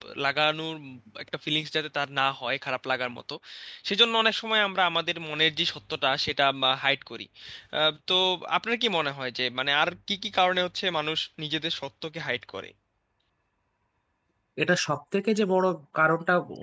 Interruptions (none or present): none